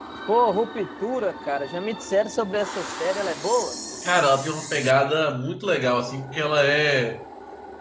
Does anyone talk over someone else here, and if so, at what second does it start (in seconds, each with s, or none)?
none